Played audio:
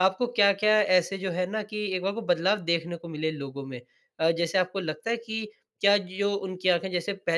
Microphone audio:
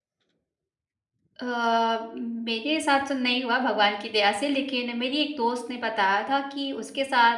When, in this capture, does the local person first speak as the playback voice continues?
1.4 s

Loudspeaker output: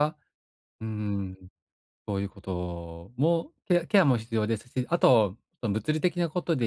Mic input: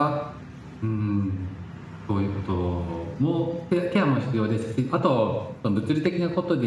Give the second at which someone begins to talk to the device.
none

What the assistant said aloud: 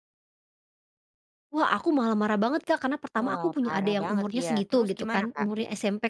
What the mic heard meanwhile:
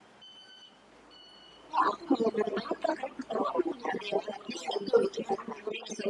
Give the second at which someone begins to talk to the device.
none

